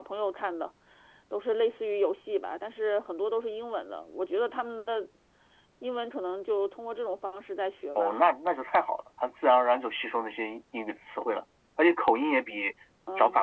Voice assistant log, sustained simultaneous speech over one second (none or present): none